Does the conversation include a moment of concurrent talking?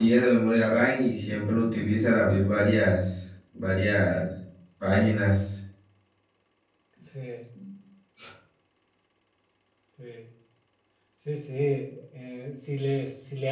No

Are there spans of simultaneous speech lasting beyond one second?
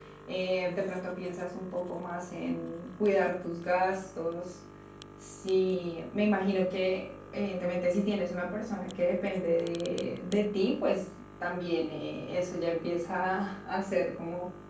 No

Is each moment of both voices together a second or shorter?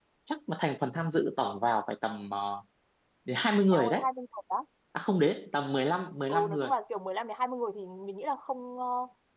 Yes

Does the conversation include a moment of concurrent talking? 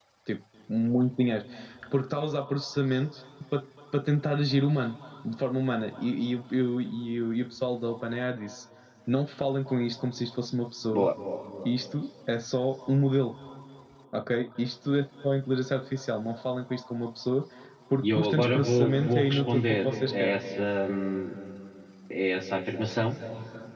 Yes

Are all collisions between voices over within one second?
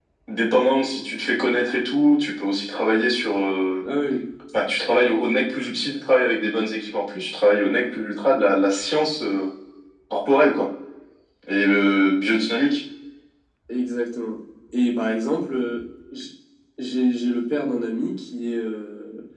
Yes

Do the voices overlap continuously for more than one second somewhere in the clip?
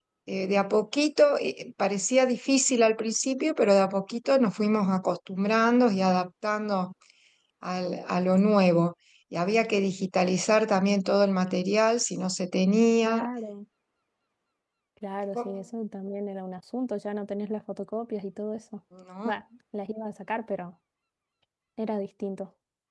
No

